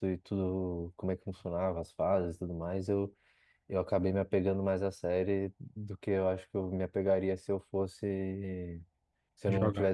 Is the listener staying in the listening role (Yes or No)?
Yes